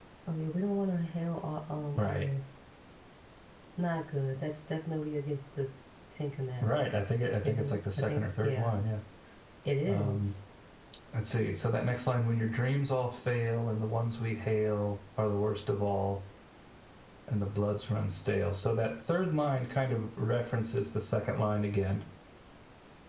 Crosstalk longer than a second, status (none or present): present